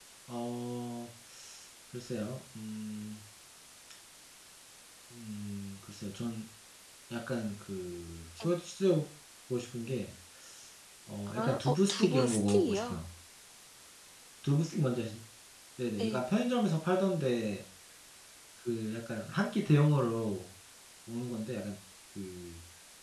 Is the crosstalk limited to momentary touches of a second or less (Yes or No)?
No